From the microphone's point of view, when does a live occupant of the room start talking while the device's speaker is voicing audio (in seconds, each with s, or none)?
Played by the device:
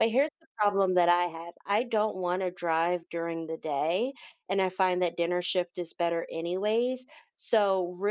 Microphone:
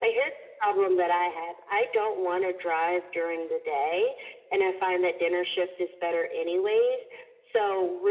none